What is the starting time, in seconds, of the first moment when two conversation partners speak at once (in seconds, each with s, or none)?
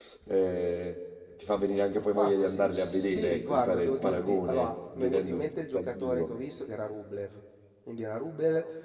2.1 s